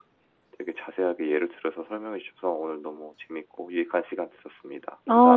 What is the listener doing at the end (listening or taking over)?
taking over